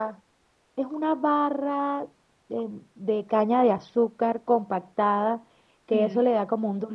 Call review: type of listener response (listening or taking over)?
listening